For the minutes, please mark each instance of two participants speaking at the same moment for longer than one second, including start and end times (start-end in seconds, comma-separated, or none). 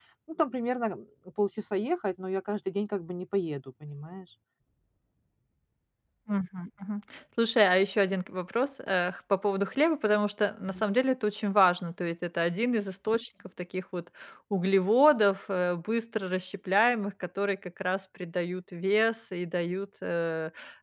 none